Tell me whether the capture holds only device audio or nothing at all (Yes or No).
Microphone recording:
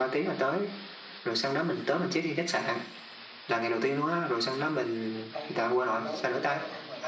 No